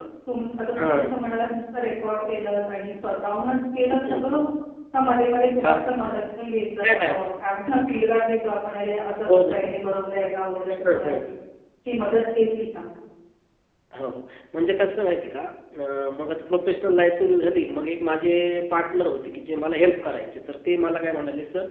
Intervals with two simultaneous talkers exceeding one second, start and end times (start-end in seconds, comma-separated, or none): none